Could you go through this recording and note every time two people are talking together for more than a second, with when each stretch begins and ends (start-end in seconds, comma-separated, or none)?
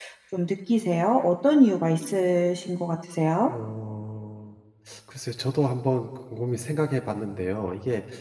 none